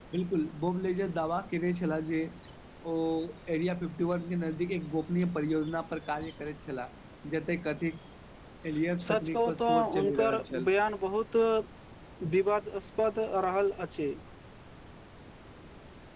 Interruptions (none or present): present